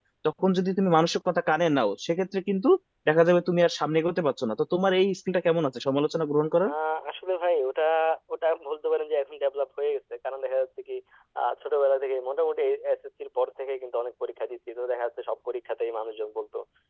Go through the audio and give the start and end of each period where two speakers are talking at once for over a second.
none

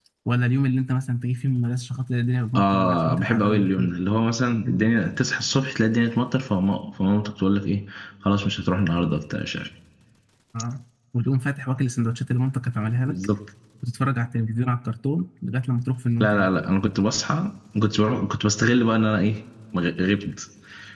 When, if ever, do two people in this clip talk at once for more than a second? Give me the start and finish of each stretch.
2.6-3.9

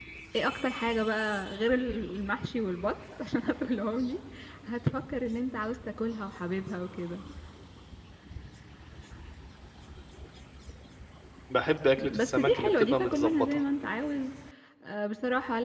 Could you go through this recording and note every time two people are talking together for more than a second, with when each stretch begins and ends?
12.0-13.6

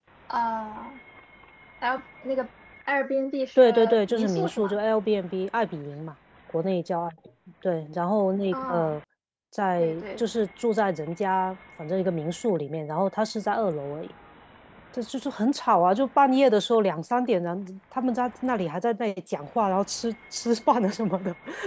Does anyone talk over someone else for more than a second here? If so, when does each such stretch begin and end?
3.6-4.8

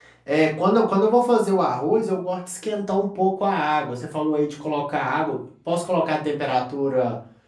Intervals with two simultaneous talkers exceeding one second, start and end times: none

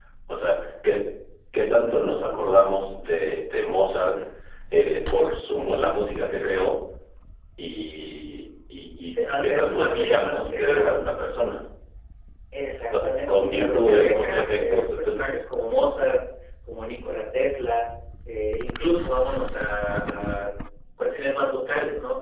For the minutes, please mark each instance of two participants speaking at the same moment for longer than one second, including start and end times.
9.1-11.0, 13.0-15.3

